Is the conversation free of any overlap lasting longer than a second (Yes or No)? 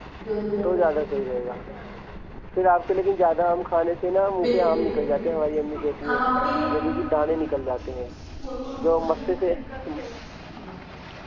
Yes